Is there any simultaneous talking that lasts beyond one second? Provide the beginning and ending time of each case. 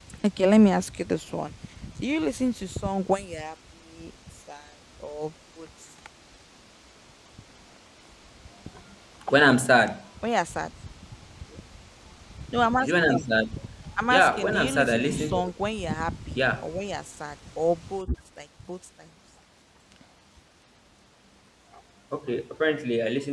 14.1-15.5

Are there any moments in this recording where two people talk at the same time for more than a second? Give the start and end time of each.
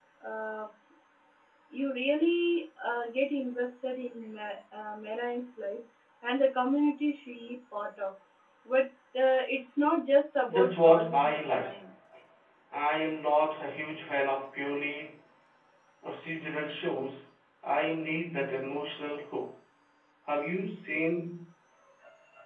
10.5-11.8

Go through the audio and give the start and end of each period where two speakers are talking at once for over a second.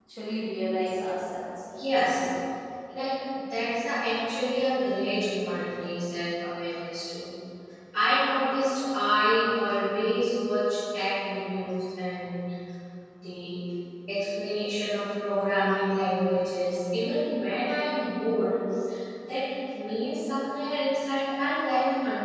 none

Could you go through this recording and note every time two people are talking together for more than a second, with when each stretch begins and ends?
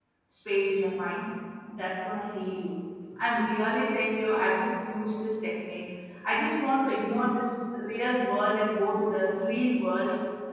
none

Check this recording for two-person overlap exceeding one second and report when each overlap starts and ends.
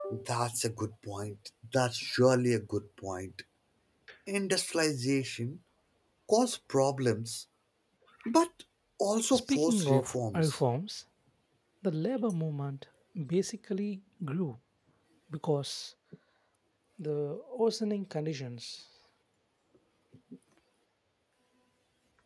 9.3-10.6

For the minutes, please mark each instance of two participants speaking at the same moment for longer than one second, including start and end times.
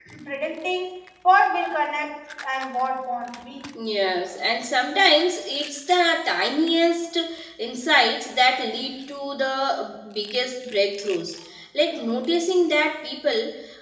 none

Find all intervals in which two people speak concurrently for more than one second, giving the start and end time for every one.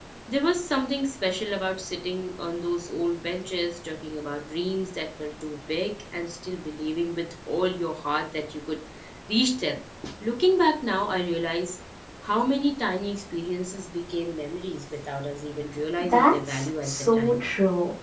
16.0-17.4

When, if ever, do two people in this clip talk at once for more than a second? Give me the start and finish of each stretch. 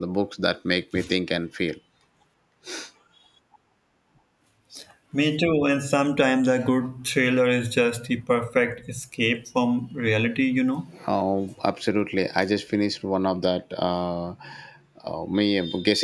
none

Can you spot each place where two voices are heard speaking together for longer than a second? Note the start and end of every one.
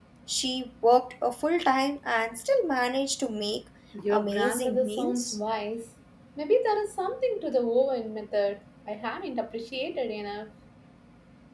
4.1-5.4

